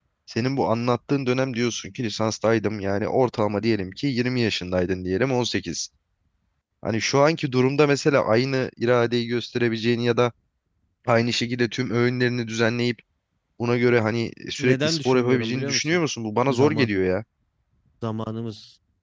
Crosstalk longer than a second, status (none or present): present